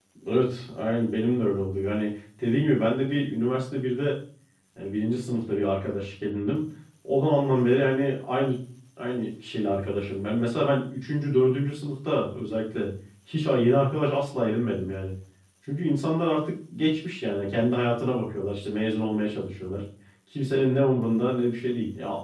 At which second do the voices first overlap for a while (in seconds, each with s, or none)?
none